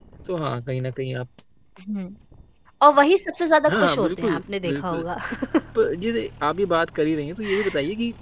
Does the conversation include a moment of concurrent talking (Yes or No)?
Yes